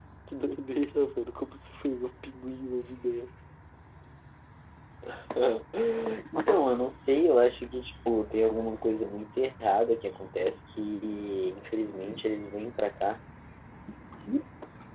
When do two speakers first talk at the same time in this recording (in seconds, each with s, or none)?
none